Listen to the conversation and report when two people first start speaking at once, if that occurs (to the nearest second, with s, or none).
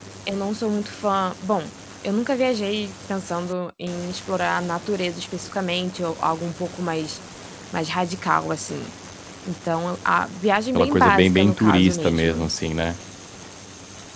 11 s